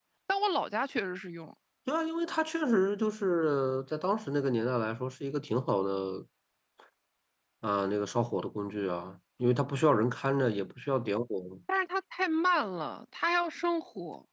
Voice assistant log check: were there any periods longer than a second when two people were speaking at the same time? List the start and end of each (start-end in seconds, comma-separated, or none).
none